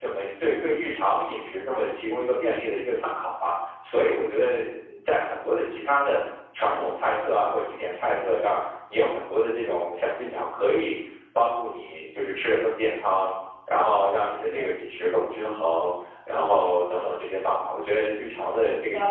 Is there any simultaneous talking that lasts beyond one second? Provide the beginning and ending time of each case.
none

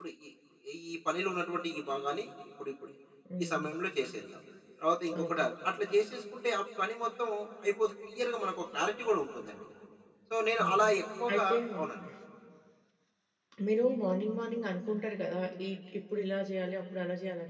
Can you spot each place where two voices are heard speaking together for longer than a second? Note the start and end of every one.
none

